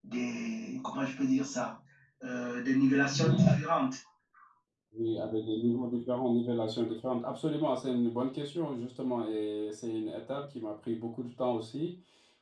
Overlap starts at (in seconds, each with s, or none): none